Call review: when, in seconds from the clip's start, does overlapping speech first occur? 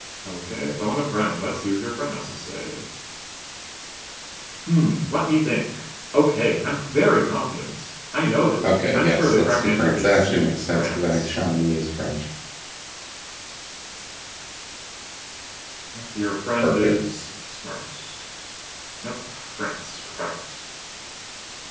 8.6 s

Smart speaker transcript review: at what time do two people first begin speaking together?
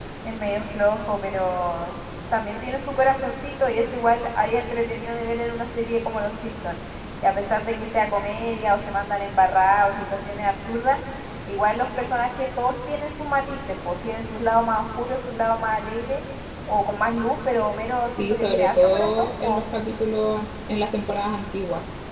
18.2 s

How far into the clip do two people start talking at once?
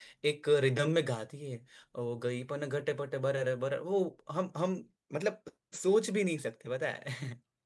none

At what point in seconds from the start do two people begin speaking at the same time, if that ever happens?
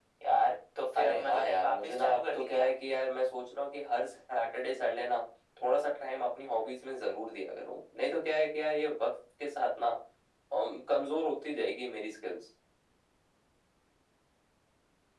1.0 s

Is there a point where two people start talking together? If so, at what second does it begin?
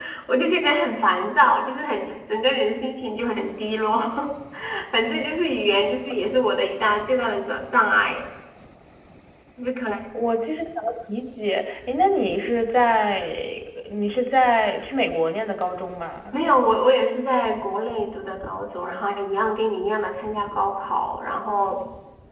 none

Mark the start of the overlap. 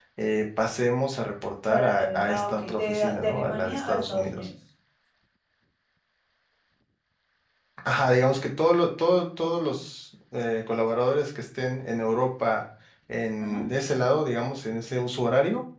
1.7 s

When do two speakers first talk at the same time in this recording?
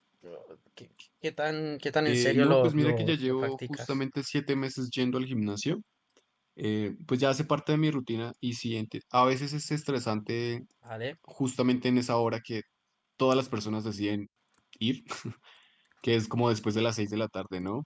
2.0 s

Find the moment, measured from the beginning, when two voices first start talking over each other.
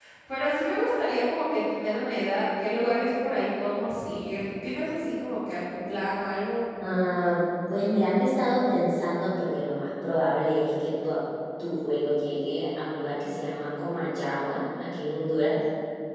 none

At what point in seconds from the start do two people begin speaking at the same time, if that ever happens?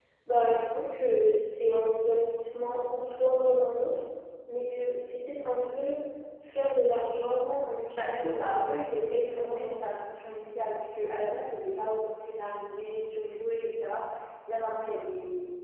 8.0 s

